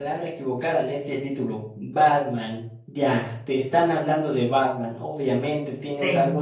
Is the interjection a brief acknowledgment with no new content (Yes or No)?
Yes